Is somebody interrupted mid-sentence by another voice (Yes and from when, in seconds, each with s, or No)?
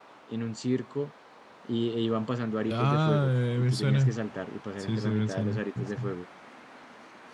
Yes, from 2.7 s